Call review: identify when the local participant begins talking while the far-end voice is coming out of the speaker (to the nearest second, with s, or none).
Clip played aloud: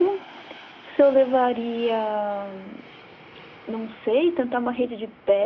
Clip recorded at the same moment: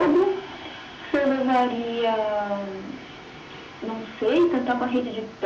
none